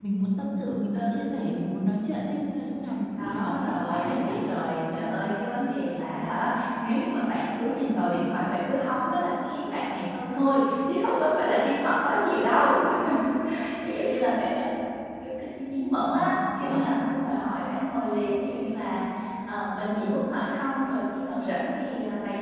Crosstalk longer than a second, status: present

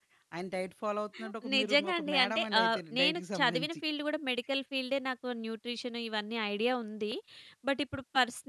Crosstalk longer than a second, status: present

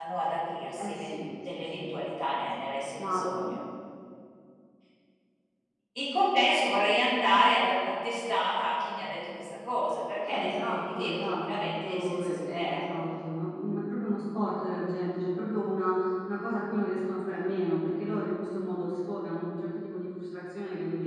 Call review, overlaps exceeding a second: present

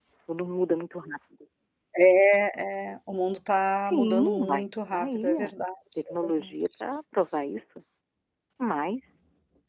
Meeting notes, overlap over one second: present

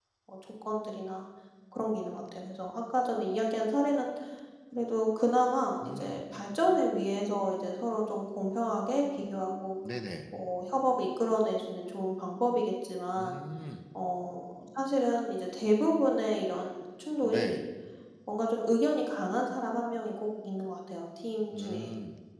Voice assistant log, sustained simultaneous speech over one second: none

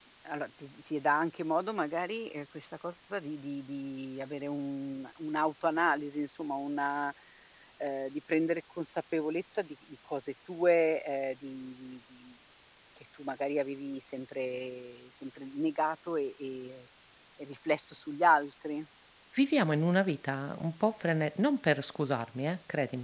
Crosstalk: none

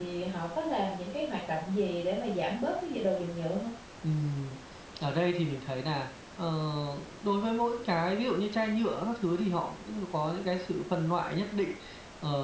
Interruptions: none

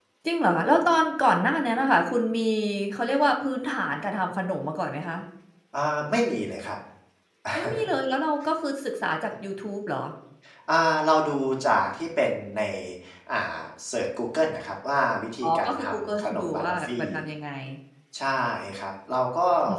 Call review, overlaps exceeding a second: present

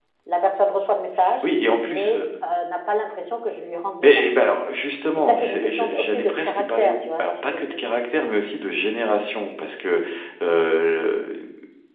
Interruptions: present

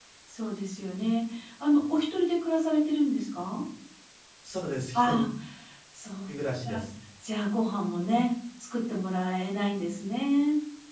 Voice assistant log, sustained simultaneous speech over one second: none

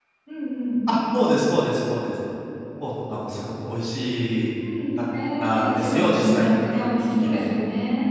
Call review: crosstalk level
present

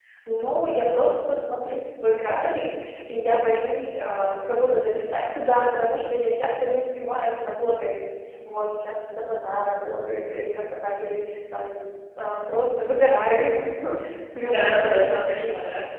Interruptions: present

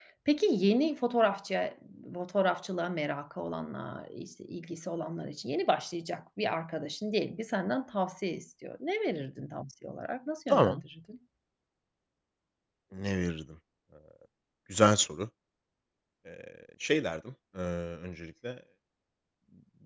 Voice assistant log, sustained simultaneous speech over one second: none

